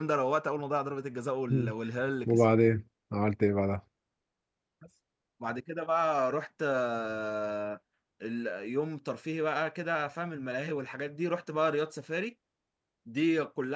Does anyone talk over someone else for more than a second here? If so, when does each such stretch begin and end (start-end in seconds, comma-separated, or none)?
none